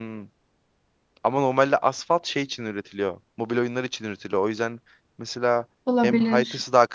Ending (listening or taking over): listening